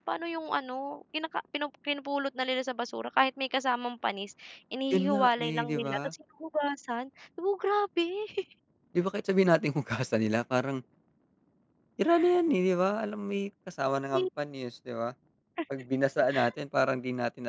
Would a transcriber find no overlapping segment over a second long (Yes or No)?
No